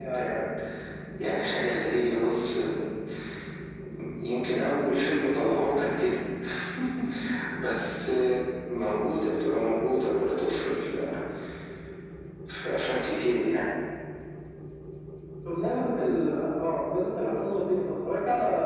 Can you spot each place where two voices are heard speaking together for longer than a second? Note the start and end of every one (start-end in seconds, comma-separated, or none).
none